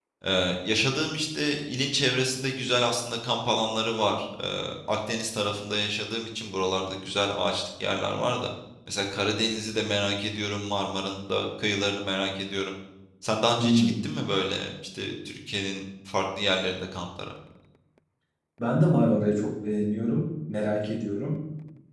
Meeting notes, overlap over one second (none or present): none